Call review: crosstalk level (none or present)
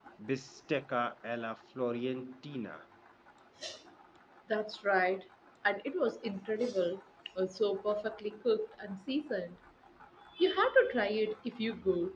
none